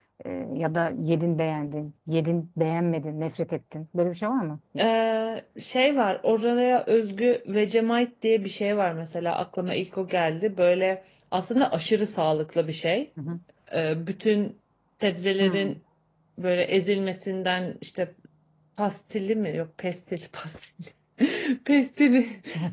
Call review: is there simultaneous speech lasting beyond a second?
No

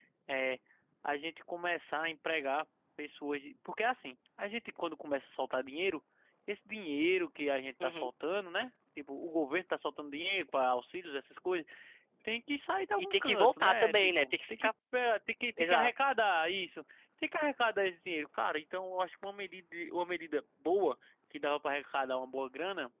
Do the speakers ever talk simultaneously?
Yes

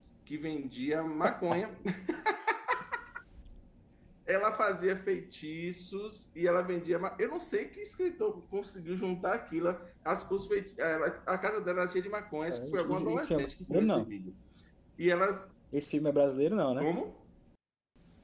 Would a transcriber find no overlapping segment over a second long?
No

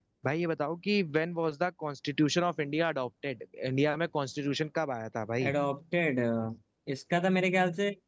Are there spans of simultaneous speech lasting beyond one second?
No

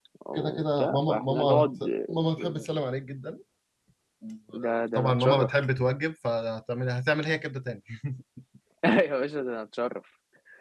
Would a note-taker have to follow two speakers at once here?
Yes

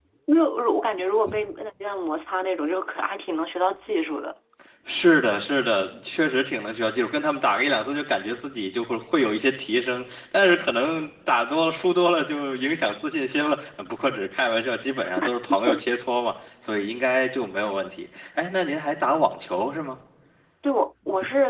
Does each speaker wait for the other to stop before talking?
Yes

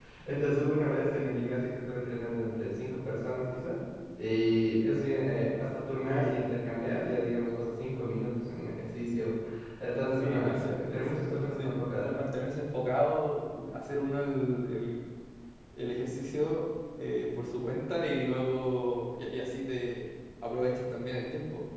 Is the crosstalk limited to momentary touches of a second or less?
No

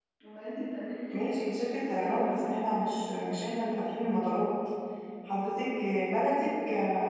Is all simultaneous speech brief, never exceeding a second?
No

